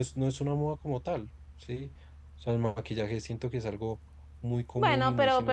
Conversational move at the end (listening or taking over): taking over